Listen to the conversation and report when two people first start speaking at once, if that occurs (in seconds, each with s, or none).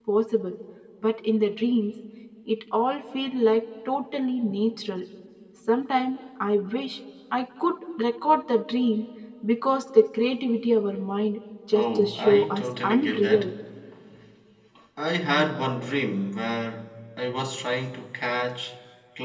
11.7 s